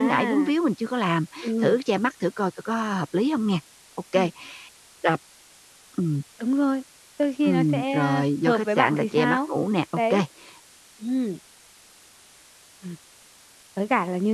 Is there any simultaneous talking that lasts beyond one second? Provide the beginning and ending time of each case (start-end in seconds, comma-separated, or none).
7.4-9.4